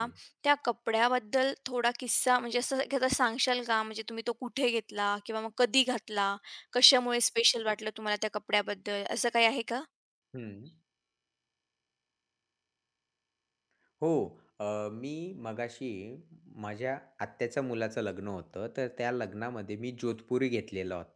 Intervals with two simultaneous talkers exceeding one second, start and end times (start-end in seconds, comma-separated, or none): none